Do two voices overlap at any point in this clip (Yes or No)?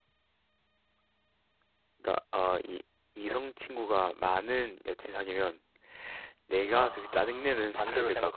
Yes